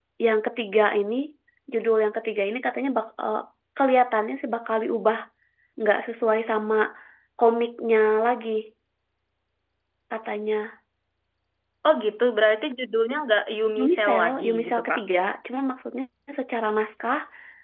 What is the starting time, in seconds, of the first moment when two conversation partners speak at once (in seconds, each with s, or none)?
13.8 s